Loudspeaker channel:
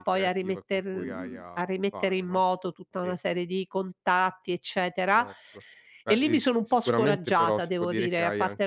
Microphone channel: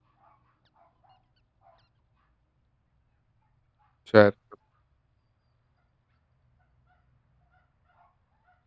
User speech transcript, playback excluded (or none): certo.